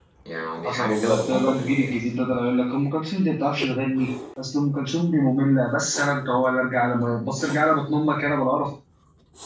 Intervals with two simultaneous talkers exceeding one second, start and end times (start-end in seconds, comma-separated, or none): 0.7-1.9